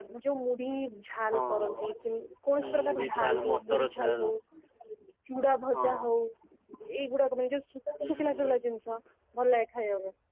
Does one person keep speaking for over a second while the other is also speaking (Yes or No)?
Yes